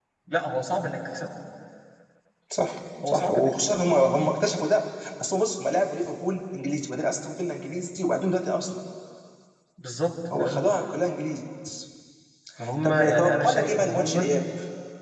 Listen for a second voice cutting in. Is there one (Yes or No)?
Yes